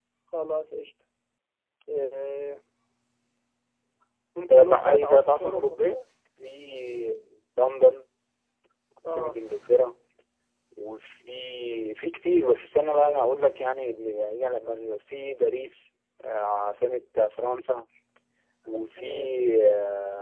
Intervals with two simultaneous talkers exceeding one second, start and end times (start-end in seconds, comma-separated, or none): 4.5-5.8